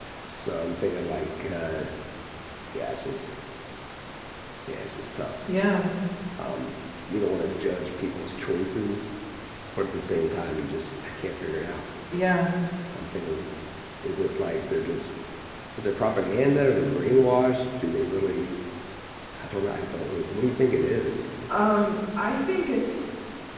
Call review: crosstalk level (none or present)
none